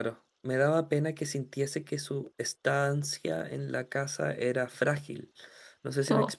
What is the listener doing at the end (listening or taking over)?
listening